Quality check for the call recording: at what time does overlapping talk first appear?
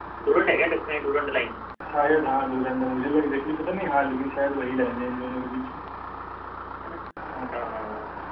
none

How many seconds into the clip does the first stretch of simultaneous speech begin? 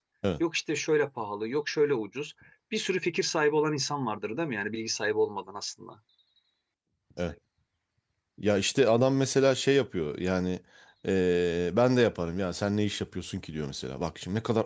none

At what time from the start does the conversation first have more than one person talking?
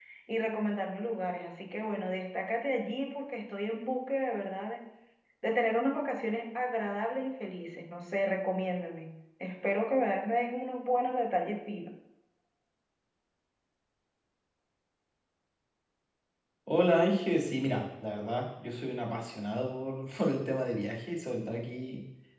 none

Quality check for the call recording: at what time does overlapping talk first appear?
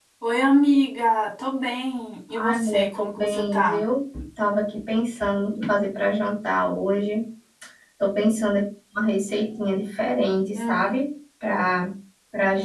2.4 s

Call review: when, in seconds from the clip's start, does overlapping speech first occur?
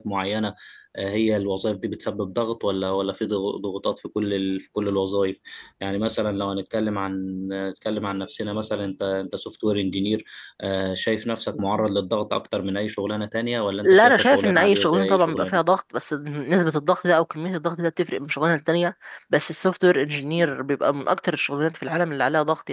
13.8 s

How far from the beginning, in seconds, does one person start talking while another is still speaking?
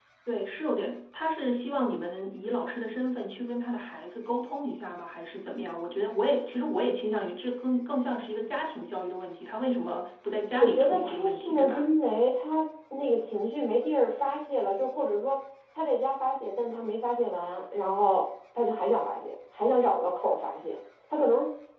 10.6 s

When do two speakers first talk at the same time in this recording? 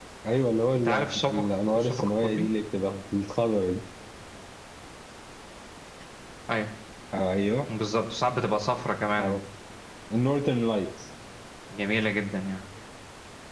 0.7 s

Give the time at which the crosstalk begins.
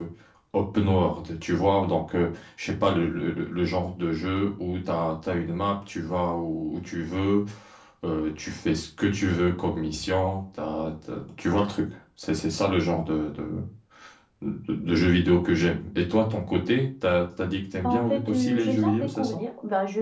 17.8 s

